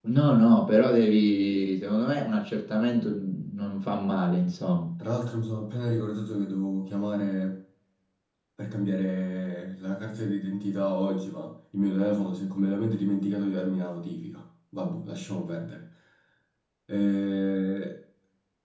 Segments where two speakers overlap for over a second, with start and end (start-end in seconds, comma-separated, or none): none